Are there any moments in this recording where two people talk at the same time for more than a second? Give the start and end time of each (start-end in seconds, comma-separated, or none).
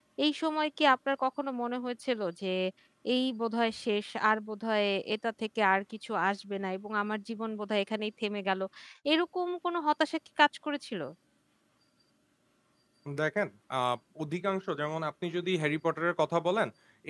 none